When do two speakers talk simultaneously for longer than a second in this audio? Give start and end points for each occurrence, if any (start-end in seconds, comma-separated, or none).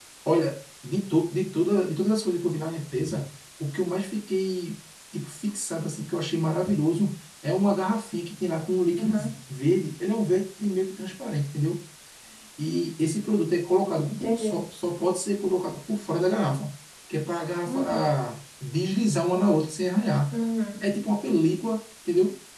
none